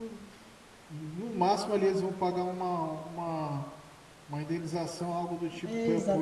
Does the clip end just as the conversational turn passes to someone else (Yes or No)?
Yes